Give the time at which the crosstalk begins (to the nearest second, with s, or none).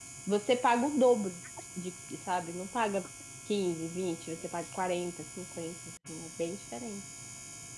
none